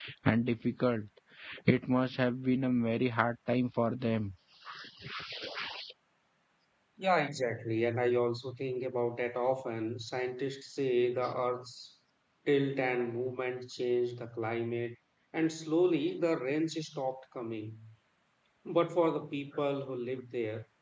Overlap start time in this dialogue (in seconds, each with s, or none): none